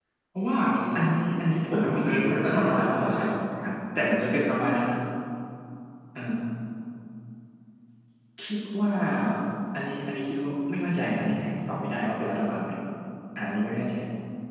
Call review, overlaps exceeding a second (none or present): present